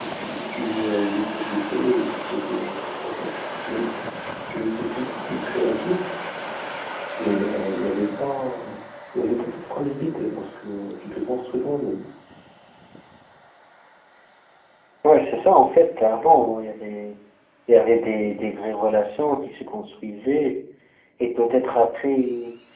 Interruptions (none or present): none